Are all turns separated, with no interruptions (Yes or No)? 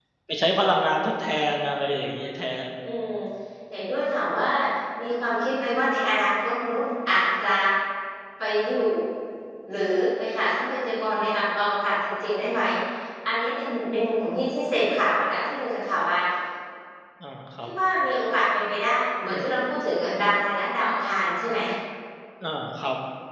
Yes